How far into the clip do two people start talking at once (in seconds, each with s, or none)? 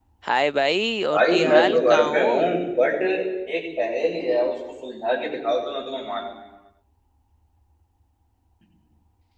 1.1 s